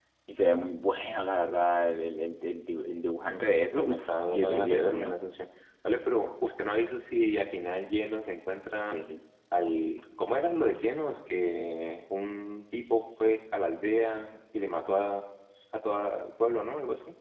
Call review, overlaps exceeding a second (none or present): present